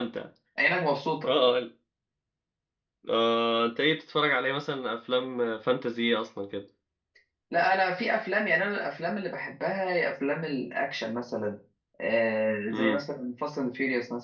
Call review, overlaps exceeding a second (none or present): none